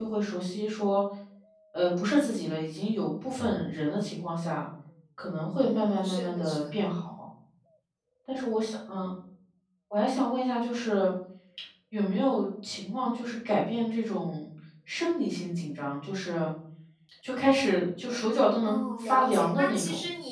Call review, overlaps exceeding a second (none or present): present